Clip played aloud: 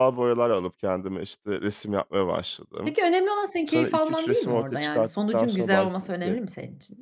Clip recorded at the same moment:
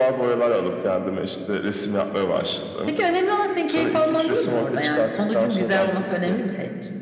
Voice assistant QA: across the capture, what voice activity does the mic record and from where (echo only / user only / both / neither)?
echo only